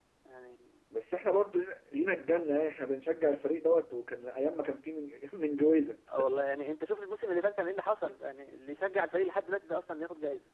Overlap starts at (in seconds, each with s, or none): none